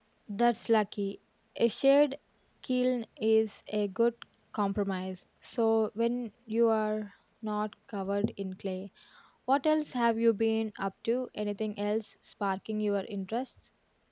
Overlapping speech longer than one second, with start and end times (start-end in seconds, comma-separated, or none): none